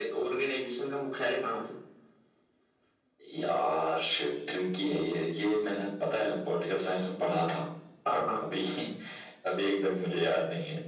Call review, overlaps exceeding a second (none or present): none